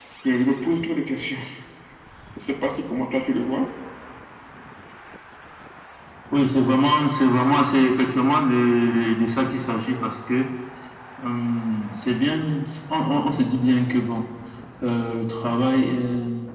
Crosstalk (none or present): none